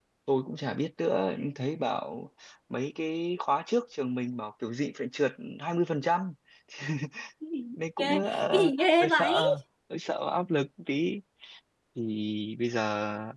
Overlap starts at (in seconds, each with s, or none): 8.0 s